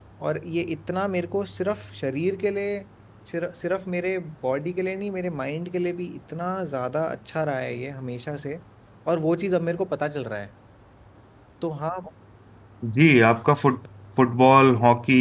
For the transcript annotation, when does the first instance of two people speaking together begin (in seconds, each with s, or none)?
none